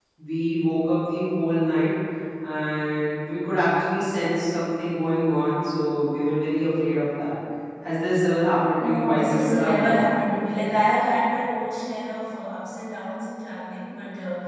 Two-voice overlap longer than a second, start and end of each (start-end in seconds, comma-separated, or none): 8.8-10.0